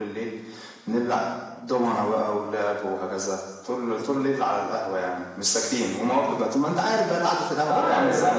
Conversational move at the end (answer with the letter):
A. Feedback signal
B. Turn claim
B